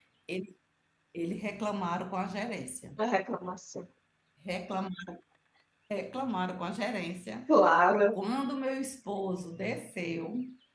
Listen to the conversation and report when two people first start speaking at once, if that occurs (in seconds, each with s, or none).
none